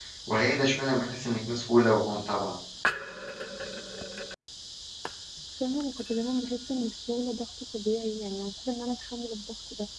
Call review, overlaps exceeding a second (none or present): none